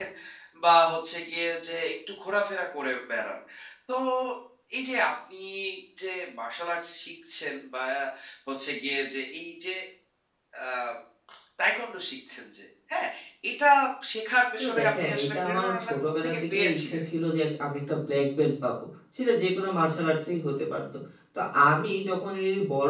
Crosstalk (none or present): present